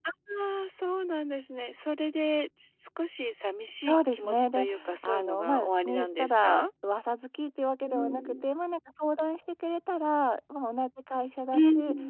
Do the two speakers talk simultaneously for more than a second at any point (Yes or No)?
Yes